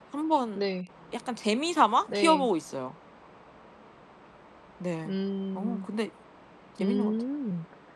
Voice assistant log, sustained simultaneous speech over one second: none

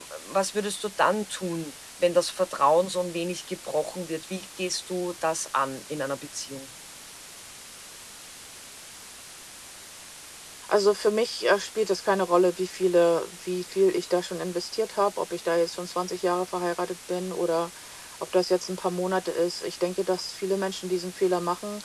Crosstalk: none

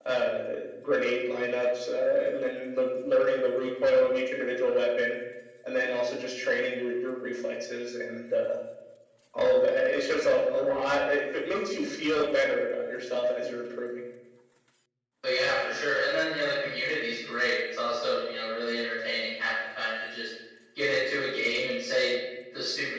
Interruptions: none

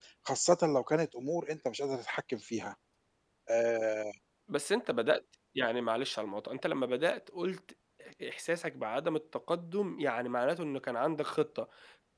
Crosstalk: none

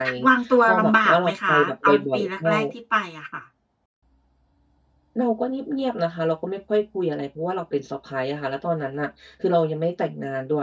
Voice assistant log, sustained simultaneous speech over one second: present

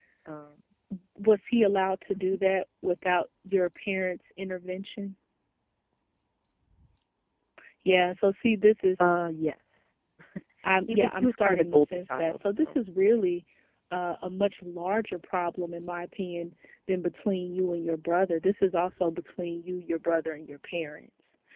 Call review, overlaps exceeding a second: present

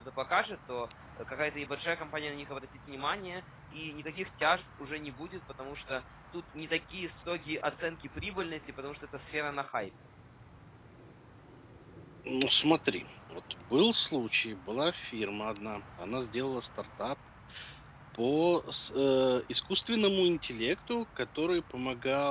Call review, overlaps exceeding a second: none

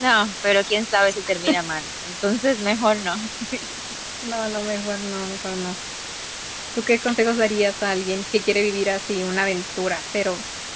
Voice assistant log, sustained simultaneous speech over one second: none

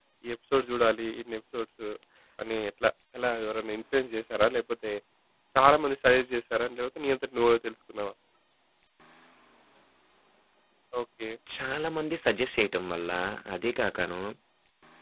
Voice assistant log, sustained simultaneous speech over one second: none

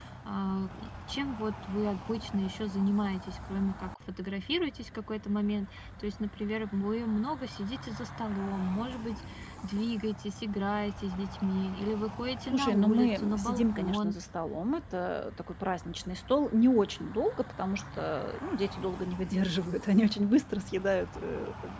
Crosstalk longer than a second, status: present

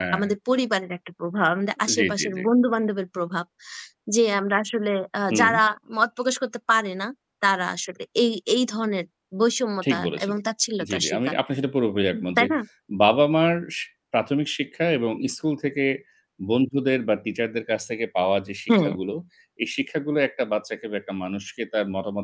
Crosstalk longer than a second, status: none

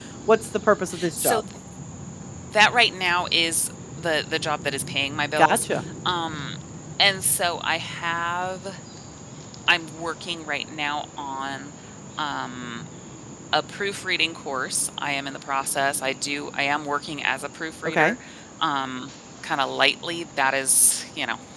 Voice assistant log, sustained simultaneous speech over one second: none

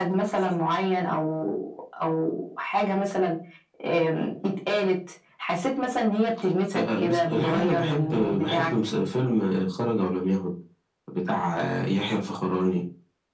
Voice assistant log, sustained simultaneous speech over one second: present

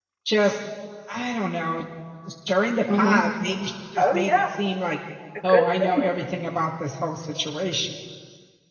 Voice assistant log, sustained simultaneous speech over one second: none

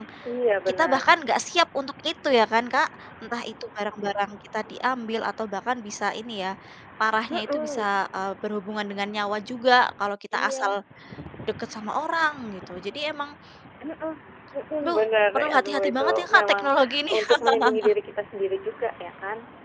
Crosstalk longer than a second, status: present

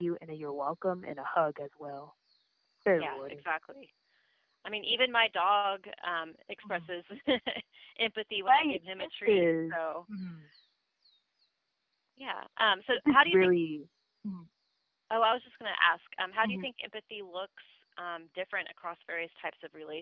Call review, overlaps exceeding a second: present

